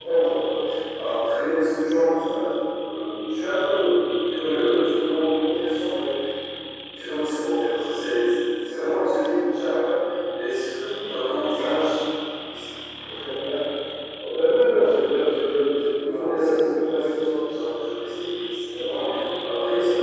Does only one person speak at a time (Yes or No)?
No